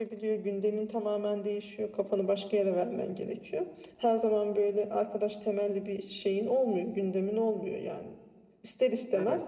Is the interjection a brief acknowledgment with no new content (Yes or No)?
Yes